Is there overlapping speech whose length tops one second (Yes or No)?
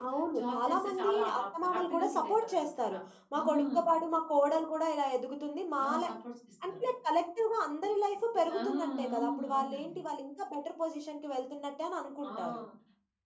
Yes